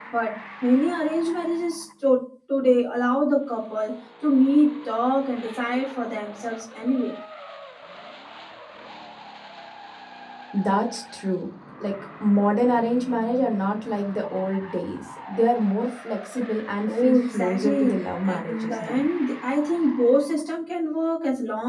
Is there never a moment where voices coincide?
No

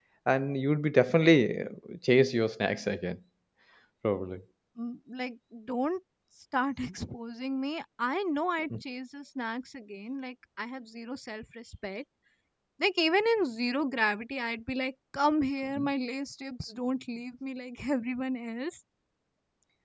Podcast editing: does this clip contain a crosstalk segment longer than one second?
No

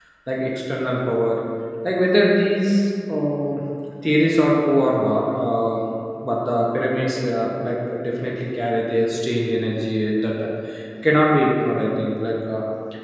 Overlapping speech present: No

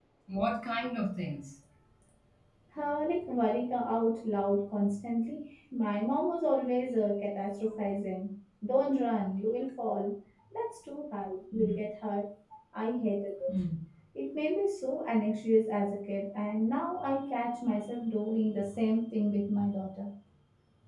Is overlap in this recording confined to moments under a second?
Yes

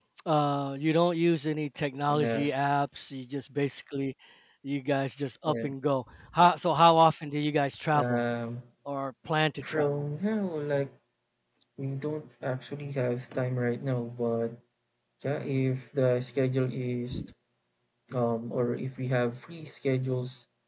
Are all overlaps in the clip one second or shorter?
Yes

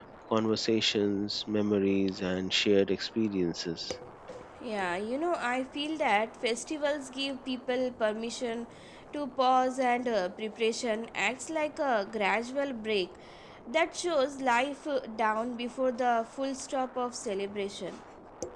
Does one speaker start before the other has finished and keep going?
No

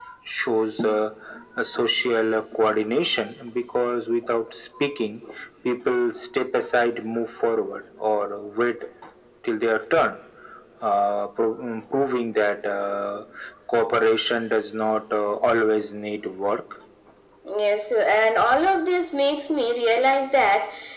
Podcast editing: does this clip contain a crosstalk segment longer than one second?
No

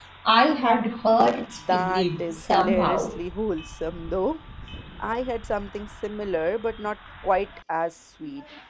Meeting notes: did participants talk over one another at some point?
Yes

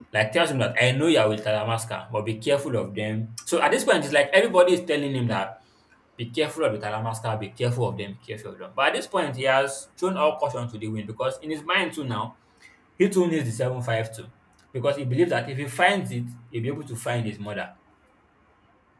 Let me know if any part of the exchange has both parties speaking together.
No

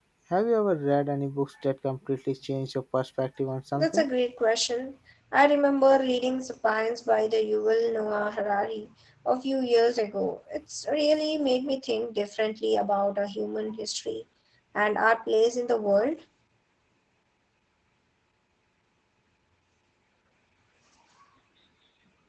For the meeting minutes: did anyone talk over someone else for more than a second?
No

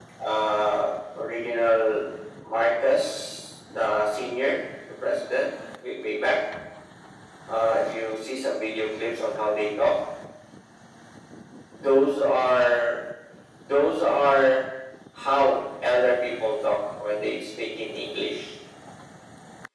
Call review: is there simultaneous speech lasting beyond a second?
No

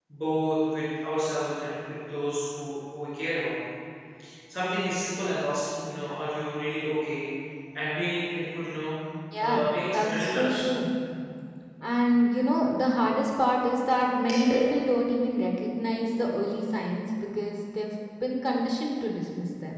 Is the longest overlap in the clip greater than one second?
Yes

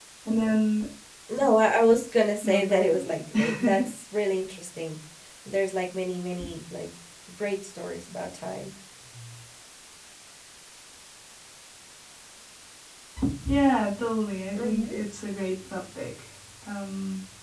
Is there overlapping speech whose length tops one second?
Yes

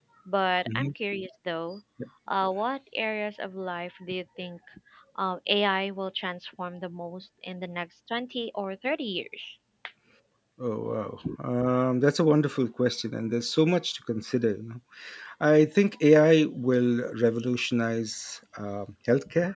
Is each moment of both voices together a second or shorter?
Yes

